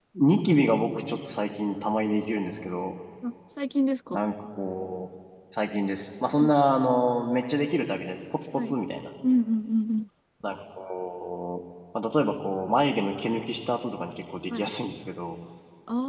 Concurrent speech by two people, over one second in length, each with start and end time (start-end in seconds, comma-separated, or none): none